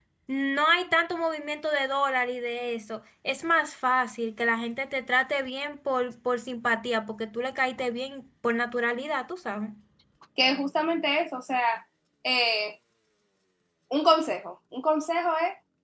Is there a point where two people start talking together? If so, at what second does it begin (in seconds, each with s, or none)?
none